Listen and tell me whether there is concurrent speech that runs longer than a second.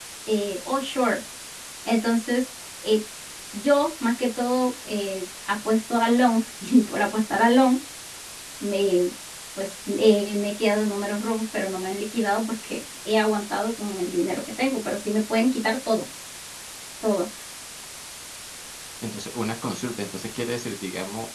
No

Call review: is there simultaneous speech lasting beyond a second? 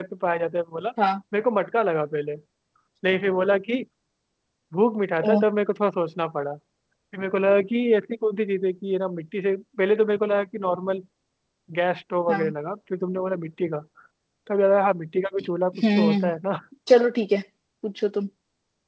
No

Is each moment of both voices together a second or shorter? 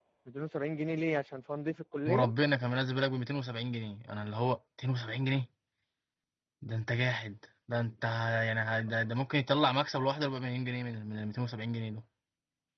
Yes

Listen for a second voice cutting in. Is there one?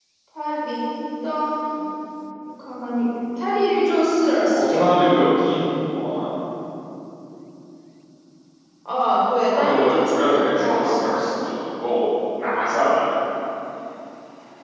Yes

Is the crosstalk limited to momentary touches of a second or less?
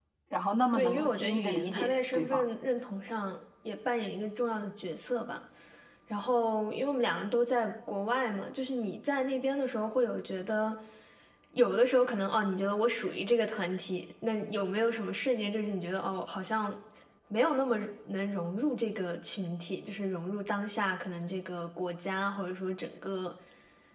No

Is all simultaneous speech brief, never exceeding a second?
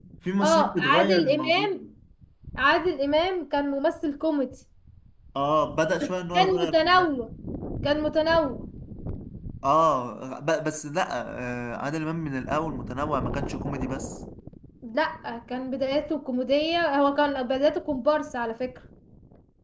No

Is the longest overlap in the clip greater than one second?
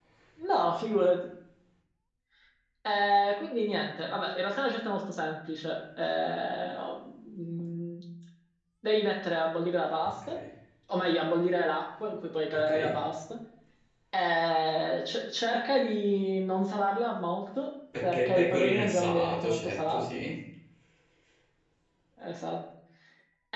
Yes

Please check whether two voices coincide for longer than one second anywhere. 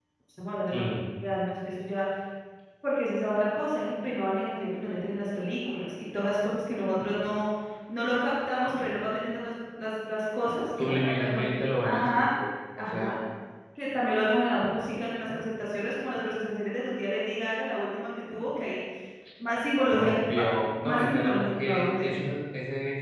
Yes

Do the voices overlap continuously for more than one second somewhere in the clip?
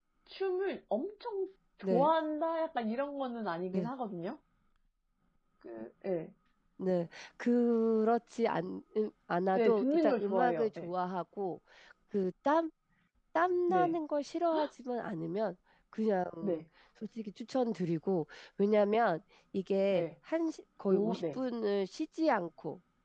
Yes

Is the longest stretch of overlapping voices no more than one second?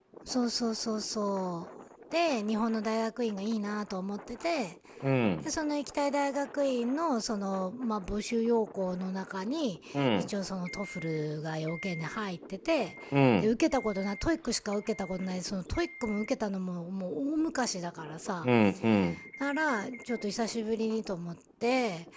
Yes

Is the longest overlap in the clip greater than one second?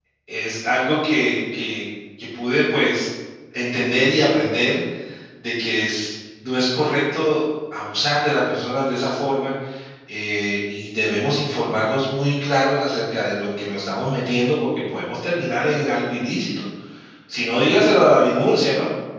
No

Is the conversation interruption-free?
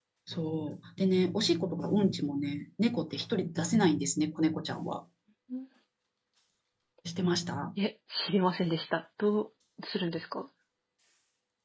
Yes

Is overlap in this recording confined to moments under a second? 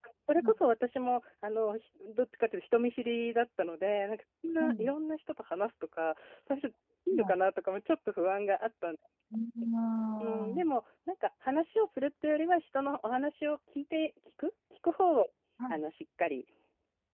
Yes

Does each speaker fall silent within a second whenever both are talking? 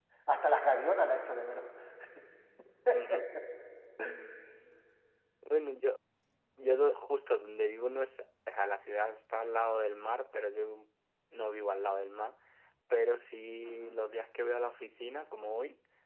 Yes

